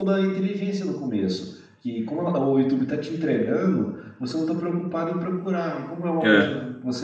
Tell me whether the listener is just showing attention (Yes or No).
Yes